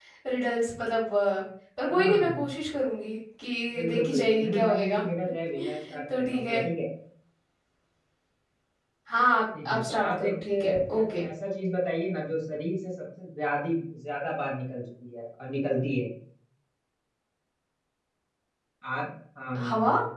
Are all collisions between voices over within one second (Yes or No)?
No